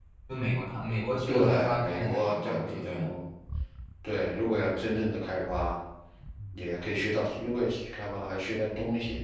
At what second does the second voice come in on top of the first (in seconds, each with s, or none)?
1.3 s